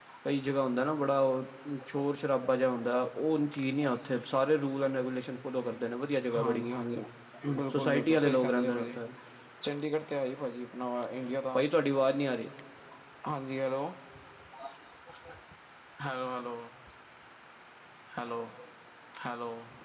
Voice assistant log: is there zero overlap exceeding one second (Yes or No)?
No